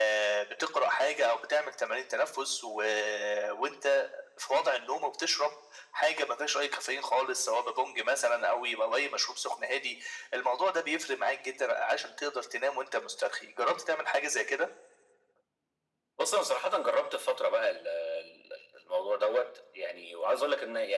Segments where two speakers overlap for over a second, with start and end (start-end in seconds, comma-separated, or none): none